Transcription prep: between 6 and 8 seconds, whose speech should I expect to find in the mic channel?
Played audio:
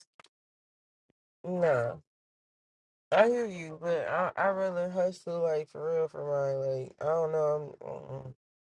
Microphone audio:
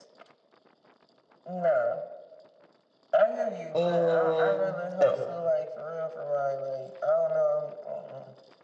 echo only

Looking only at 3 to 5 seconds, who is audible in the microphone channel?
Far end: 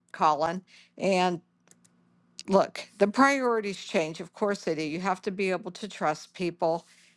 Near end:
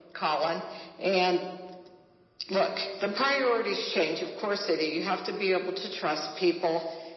echo only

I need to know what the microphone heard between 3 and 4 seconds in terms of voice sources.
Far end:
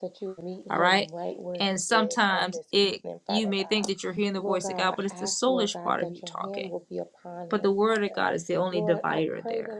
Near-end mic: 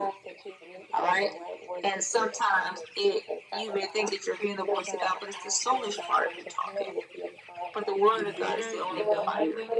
echo only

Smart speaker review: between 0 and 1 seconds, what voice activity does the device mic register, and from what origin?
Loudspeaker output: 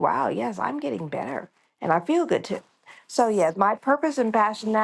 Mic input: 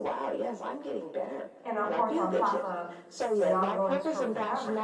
echo only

